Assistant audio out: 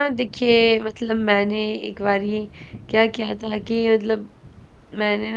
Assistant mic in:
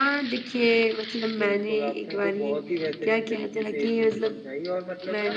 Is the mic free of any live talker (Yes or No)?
No